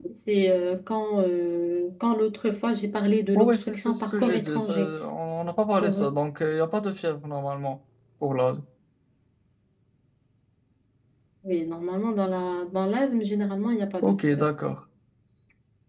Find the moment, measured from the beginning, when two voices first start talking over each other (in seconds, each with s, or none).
3.4 s